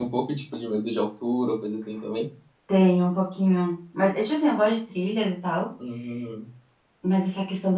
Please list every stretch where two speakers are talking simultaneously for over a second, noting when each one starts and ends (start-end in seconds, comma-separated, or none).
none